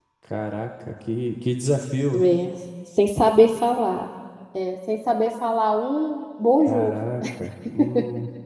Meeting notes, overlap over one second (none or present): none